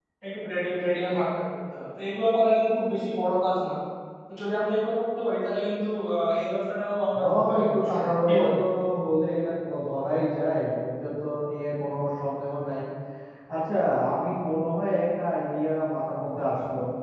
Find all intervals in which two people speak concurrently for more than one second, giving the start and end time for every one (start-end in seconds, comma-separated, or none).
7.2-8.5